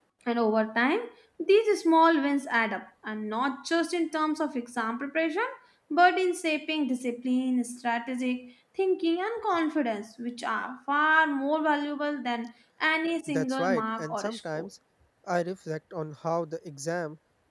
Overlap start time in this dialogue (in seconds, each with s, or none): 13.3 s